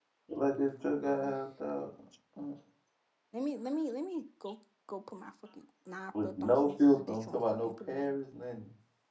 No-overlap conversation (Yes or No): No